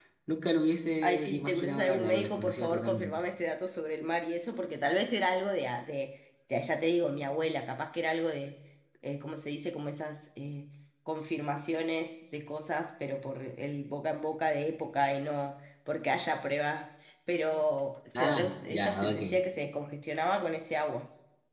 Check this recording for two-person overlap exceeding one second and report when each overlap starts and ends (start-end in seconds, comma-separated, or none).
1.0-3.1, 18.1-19.4